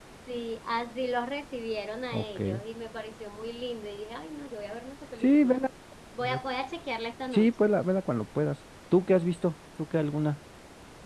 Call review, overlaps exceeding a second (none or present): none